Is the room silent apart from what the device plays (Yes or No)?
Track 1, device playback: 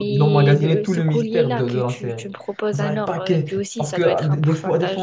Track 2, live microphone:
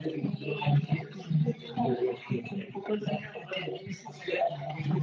Yes